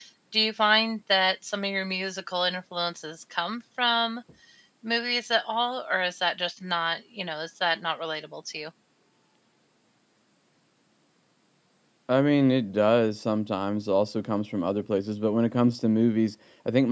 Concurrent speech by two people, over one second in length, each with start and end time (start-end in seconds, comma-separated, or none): none